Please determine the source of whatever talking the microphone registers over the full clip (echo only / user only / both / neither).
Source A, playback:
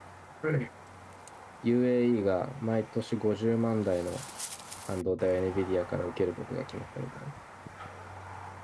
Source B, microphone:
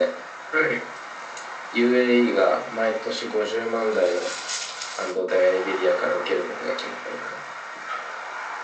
echo only